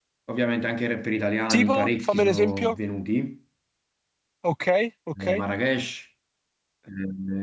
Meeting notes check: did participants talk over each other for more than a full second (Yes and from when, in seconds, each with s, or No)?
Yes, from 1.4 s